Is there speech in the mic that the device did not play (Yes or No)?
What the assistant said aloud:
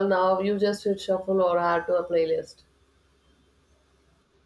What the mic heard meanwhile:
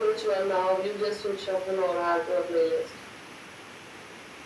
No